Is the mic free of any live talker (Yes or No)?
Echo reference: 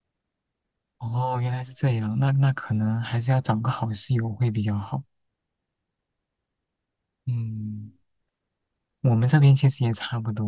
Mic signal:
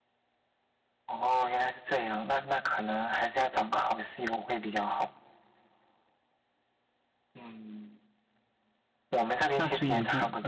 No